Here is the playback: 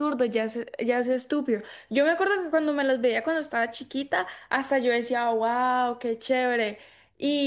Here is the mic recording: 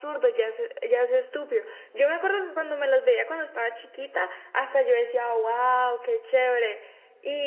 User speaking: No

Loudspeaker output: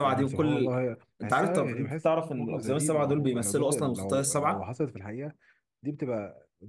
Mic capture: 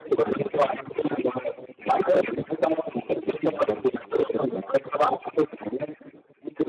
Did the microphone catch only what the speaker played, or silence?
No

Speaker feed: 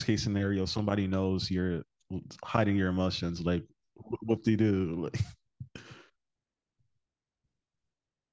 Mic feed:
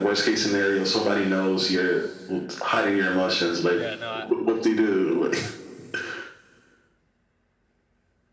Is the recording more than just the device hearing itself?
Yes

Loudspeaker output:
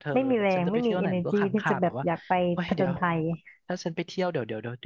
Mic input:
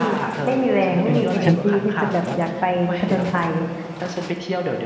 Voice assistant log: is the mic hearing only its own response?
No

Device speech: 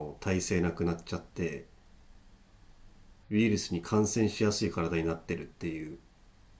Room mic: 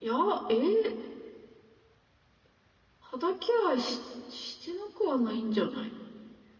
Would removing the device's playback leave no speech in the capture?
No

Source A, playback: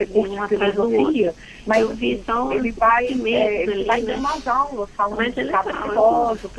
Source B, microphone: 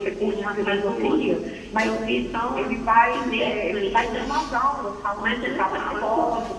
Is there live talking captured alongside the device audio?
No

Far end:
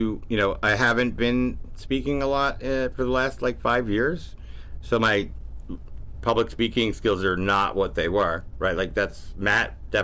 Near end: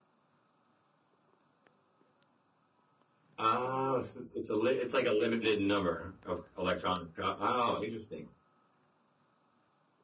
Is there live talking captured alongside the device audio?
Yes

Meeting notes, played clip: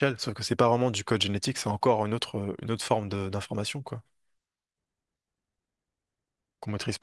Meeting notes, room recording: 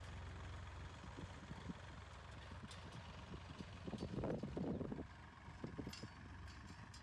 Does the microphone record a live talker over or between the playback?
No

